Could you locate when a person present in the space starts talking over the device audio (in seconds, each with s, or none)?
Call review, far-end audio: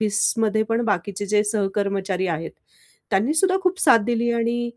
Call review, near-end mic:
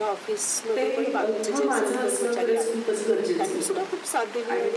0.8 s